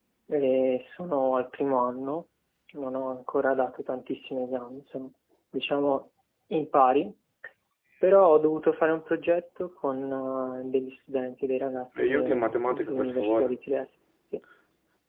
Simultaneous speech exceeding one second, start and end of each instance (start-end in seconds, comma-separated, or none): 12.0-13.5